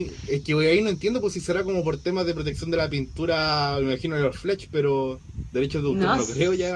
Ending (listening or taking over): taking over